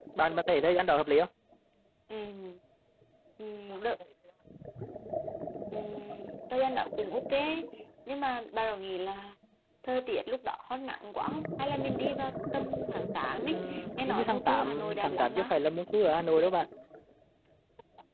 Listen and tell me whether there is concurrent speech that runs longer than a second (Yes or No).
Yes